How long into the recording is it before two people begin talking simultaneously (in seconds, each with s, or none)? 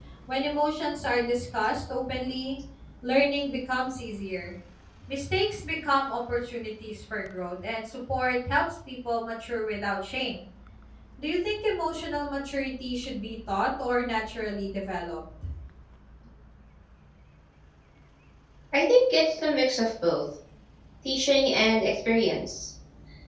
none